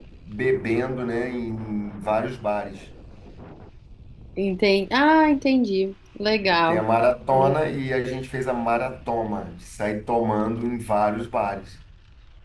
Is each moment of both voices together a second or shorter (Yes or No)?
Yes